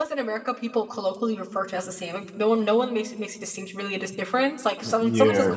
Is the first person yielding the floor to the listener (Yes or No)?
No